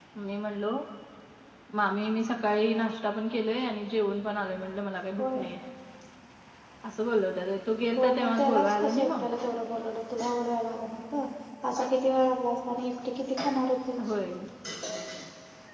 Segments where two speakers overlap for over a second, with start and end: 8.0-9.2

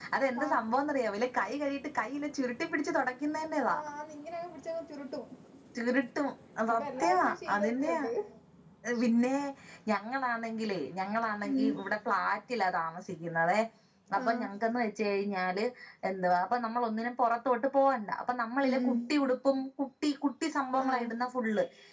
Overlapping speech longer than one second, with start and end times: 6.7-8.0

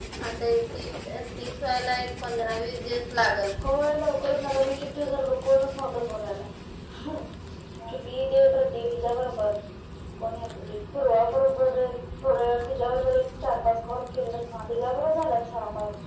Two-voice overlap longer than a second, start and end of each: none

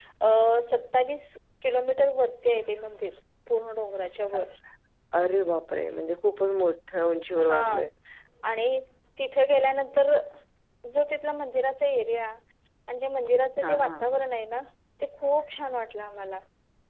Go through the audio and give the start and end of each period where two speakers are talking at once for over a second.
none

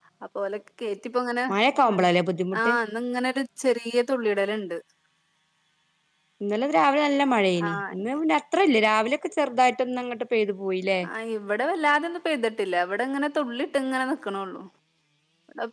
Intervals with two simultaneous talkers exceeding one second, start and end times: none

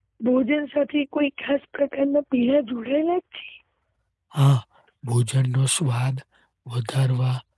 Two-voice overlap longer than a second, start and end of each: none

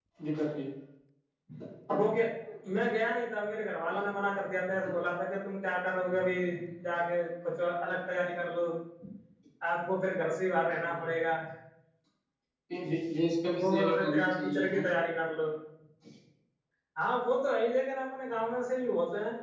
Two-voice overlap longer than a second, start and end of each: 13.6-14.9

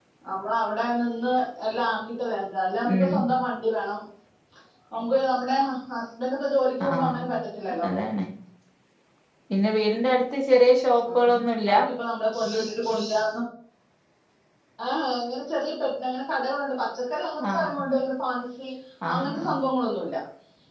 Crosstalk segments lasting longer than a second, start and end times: none

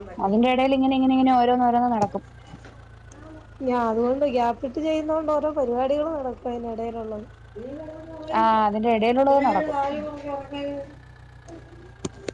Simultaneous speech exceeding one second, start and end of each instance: none

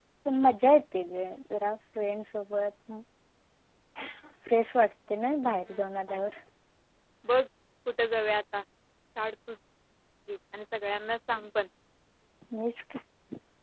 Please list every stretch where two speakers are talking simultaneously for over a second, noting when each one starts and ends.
none

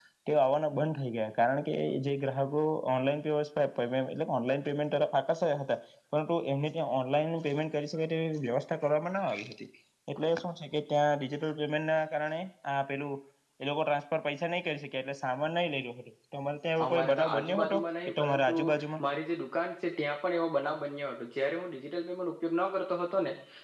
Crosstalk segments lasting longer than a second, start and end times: 16.8-18.5

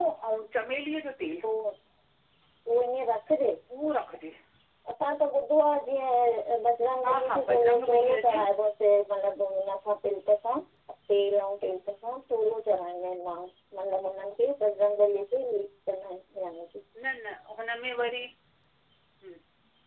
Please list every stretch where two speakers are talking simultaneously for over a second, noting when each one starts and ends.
7.0-8.3

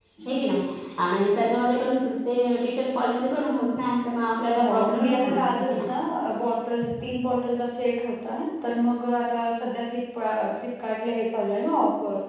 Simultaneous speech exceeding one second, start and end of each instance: 4.6-5.9

